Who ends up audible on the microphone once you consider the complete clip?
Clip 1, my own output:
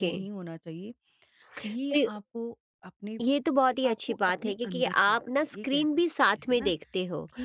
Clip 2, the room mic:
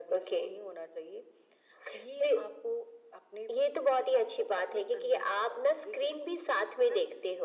echo only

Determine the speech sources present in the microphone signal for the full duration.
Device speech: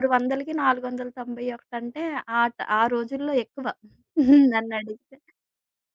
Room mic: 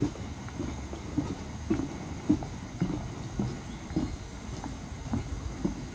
neither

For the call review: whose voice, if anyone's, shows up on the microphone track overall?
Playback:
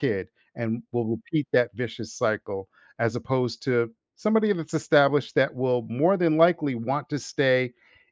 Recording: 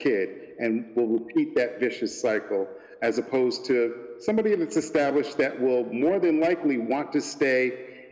echo only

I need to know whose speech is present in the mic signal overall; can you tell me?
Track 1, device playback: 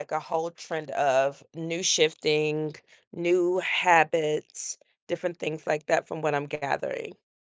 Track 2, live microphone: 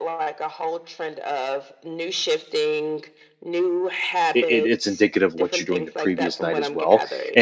both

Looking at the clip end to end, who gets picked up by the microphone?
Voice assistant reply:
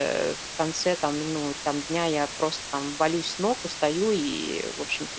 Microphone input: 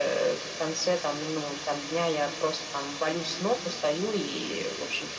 echo only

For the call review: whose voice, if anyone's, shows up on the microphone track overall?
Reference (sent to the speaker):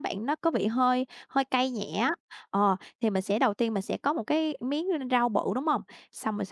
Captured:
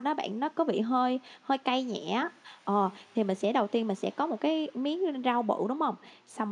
echo only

